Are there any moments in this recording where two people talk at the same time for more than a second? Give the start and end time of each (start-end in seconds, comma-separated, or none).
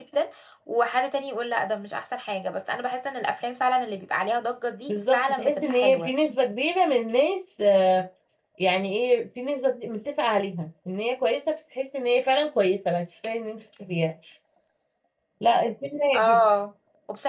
4.9-6.1